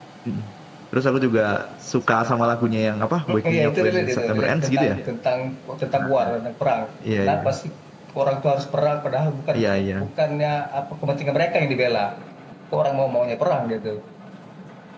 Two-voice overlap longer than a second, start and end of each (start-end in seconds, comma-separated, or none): 3.3-5.1